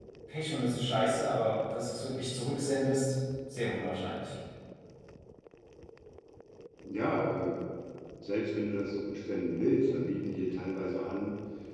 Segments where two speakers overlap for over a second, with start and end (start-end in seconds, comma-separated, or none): none